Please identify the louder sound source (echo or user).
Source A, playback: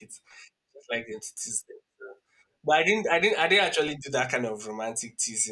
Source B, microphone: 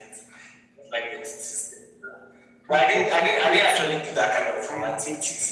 echo